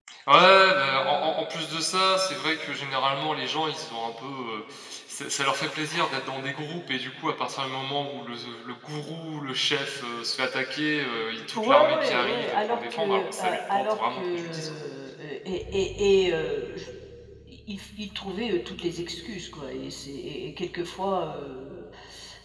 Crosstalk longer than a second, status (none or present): present